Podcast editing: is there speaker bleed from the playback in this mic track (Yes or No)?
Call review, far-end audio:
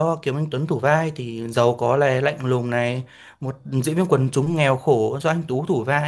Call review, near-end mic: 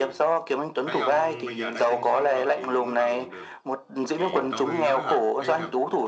Yes